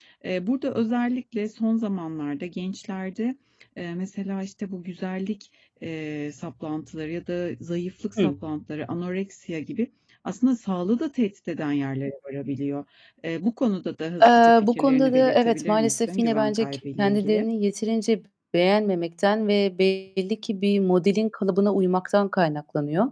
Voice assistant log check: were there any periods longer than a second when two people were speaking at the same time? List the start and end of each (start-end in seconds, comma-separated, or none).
14.2-17.5